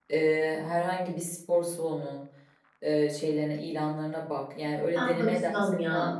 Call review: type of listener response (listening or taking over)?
taking over